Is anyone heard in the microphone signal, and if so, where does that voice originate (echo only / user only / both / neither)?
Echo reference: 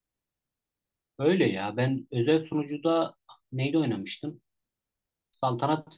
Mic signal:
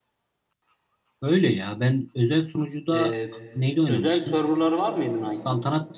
both